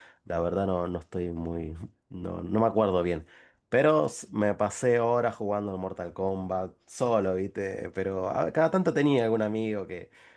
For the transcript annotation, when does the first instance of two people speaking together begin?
none

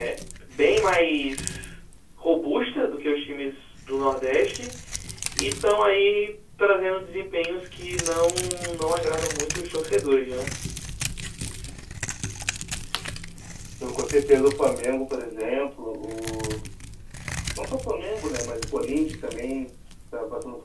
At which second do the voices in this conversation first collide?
none

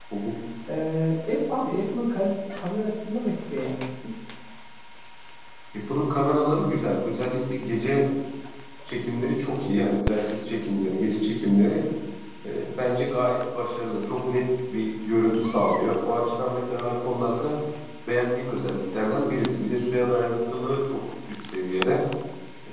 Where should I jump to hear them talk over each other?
none

